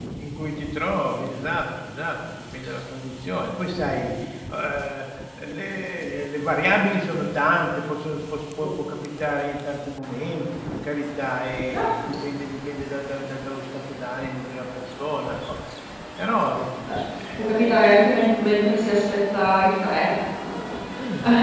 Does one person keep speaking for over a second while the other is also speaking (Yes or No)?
No